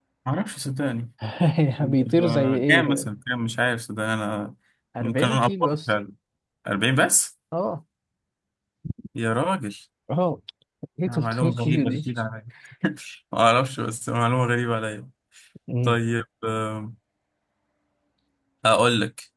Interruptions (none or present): present